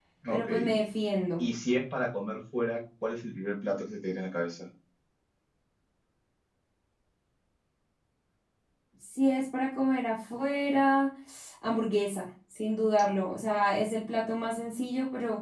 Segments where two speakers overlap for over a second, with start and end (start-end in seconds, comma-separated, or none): none